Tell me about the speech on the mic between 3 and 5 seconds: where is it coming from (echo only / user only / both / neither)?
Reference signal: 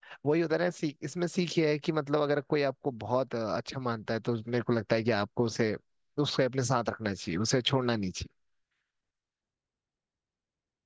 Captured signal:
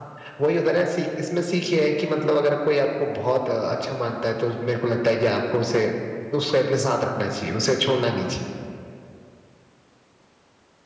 echo only